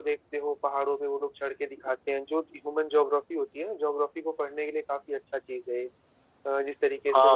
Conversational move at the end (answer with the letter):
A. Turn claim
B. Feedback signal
A